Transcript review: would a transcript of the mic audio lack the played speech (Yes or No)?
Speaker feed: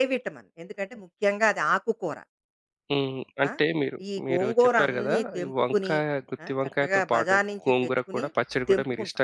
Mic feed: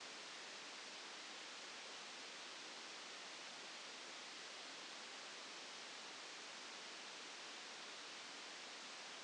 Yes